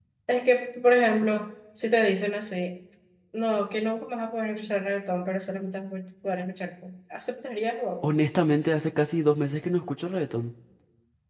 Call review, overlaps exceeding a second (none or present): none